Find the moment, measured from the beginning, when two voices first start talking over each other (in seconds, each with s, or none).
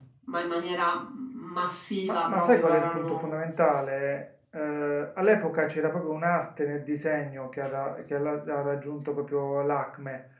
2.1 s